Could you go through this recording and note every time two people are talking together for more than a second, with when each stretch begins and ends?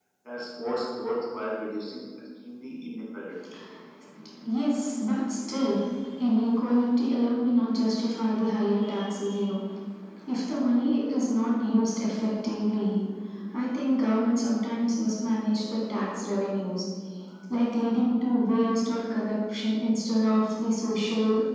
none

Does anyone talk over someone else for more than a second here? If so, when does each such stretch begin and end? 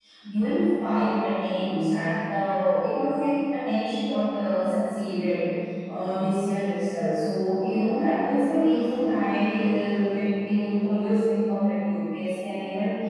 none

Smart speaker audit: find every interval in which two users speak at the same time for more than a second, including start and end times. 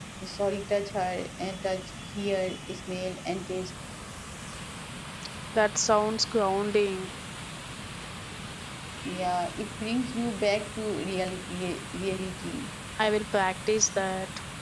none

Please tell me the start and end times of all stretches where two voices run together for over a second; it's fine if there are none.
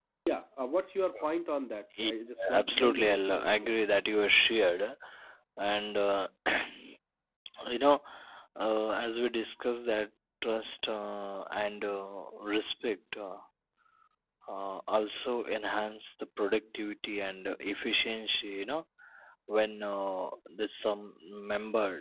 2.5-3.8

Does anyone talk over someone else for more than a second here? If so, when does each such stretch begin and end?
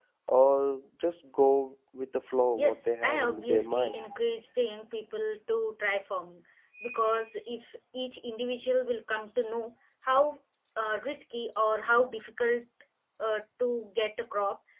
2.5-4.0

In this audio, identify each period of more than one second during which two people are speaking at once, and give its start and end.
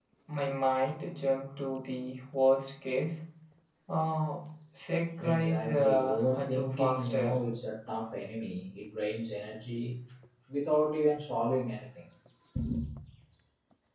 5.2-7.4

